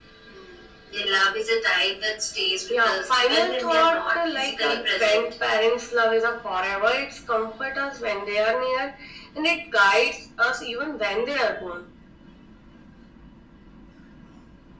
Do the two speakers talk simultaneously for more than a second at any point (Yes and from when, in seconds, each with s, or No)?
Yes, from 2.7 s